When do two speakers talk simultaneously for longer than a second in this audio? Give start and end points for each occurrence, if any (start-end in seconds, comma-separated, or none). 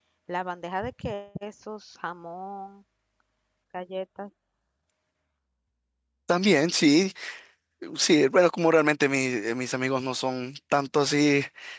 none